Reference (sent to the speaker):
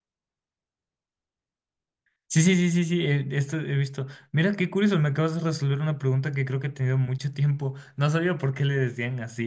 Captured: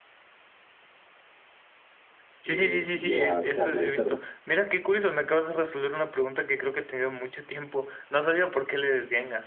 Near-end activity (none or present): present